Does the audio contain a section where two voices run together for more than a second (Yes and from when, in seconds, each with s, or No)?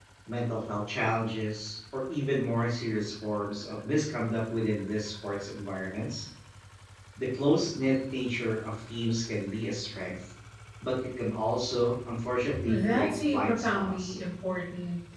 Yes, from 12.5 s